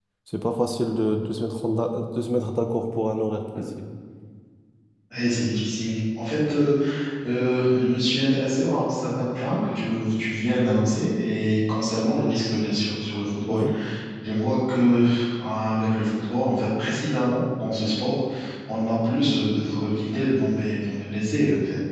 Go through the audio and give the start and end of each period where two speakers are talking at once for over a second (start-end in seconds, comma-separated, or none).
none